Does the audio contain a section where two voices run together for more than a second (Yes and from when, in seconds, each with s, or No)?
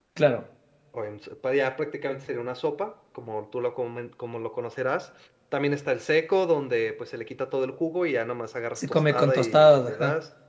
Yes, from 8.8 s